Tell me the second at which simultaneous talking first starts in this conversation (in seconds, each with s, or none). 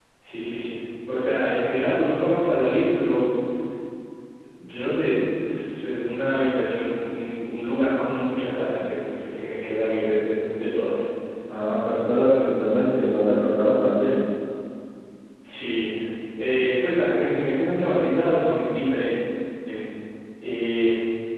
none